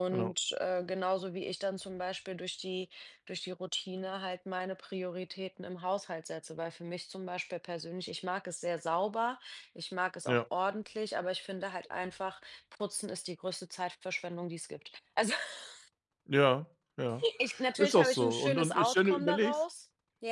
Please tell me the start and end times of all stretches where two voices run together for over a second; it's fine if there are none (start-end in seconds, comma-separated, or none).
17.8-19.6